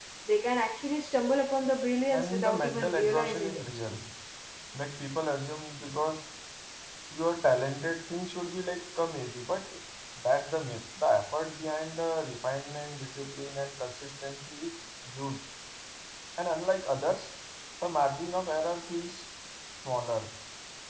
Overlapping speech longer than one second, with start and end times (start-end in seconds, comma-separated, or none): 2.1-3.6